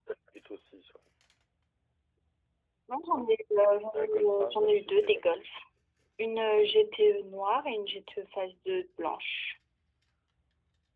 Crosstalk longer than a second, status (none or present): present